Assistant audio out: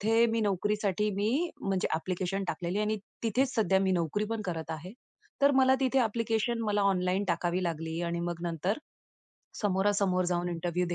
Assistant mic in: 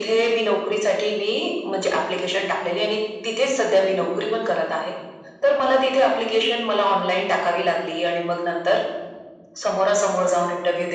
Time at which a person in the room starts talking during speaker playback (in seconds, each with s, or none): none